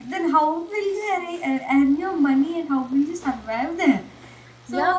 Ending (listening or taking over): taking over